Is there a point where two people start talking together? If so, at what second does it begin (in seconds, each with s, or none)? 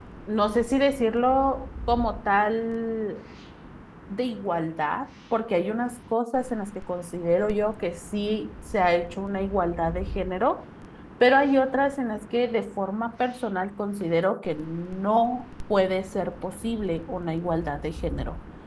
none